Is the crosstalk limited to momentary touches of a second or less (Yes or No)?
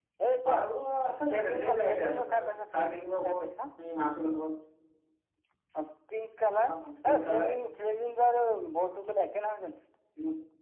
No